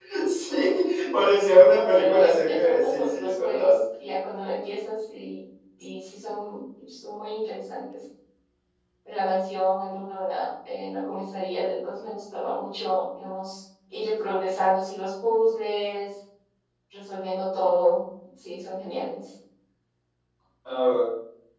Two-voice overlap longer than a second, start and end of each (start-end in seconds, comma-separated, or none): 1.4-3.7